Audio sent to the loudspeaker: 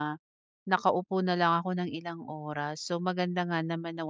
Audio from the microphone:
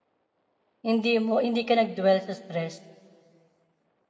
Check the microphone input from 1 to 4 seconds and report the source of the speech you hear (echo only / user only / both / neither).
user only